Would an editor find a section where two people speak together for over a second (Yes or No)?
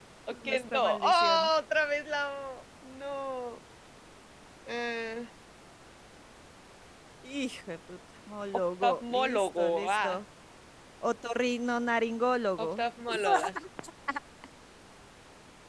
Yes